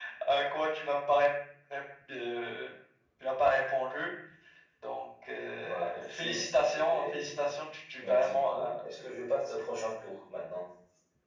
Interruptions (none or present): present